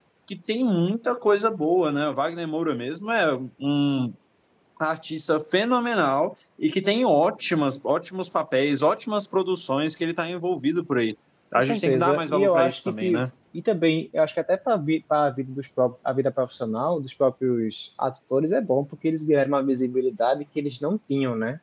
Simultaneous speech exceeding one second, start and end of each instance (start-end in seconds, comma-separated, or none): 11.6-13.2